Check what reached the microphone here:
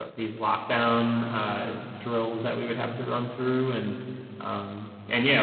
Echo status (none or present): none